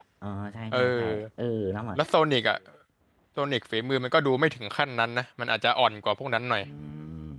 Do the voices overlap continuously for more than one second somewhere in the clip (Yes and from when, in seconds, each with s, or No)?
No